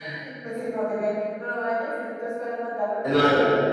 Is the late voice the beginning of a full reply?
Yes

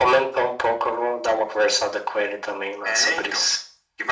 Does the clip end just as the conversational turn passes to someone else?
Yes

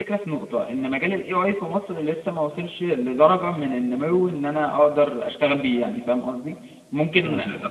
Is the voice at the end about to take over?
No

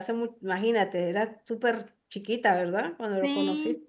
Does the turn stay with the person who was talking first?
No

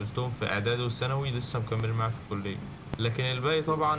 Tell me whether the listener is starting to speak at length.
No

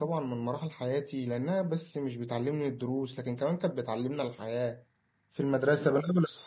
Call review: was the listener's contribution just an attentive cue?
Yes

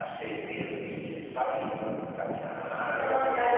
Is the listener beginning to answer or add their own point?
Yes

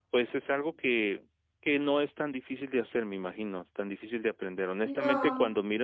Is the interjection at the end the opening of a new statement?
No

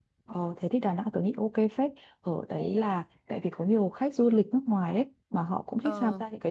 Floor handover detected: No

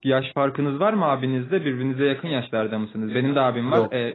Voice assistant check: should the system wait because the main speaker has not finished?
Yes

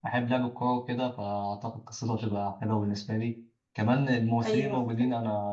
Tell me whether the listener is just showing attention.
Yes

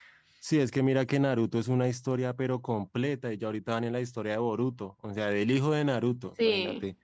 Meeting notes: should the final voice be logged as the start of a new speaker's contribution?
No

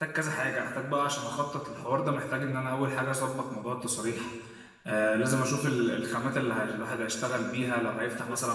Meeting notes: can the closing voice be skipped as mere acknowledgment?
No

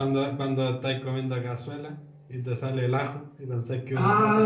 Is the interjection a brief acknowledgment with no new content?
No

